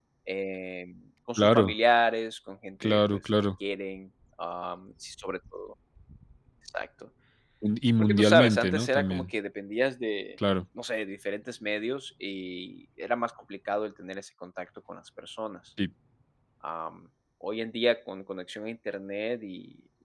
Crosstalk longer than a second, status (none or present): present